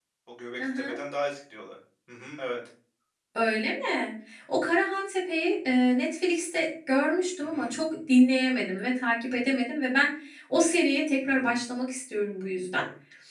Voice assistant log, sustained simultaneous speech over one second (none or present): none